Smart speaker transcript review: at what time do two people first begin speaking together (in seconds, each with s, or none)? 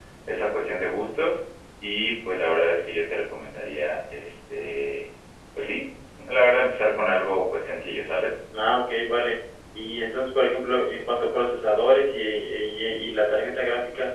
none